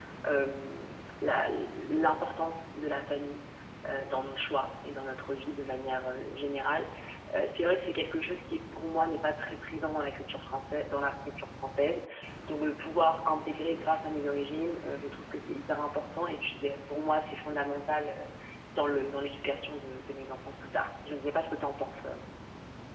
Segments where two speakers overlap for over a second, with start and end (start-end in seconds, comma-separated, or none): none